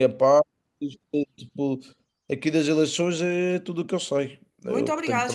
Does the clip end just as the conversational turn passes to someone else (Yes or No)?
Yes